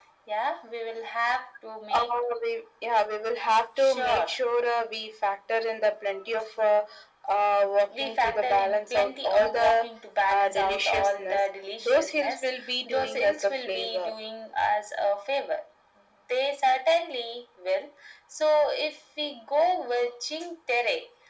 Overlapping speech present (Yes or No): Yes